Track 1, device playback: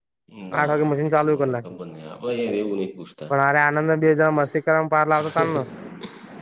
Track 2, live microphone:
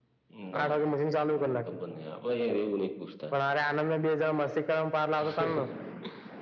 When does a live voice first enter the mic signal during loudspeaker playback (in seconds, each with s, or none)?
none